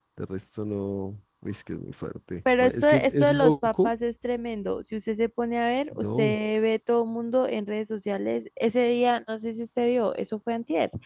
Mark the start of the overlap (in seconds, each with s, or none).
2.6 s